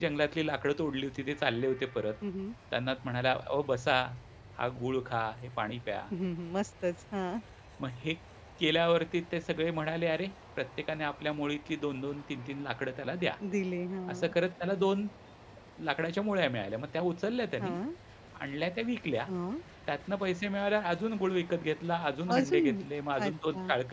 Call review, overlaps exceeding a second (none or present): none